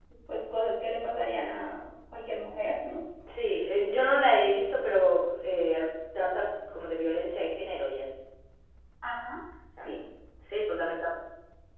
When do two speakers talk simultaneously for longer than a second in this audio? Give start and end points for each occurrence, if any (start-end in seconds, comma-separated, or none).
none